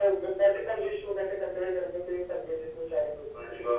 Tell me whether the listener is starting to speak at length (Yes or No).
Yes